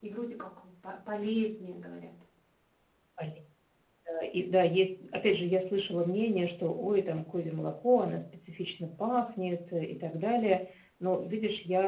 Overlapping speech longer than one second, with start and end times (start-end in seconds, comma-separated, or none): none